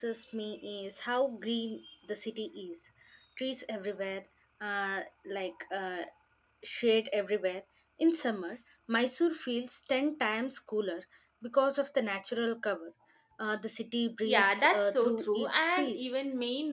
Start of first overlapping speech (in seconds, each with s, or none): 14.2 s